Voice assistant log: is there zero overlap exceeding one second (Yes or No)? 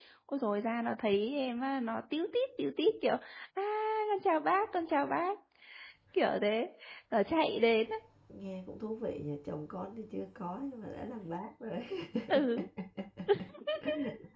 Yes